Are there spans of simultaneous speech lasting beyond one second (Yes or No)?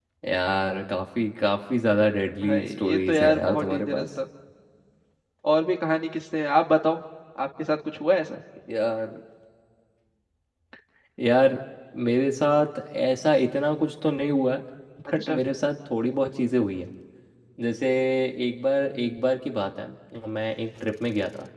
Yes